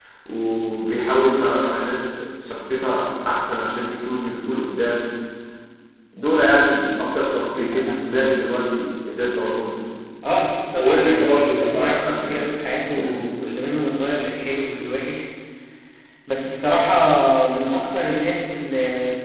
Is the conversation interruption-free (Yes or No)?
No